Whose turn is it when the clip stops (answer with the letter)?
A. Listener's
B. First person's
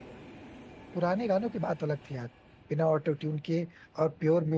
B